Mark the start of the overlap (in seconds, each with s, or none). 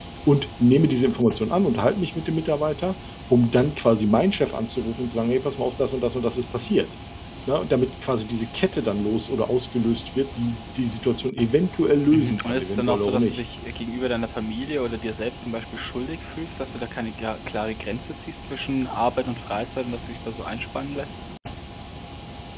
12.1 s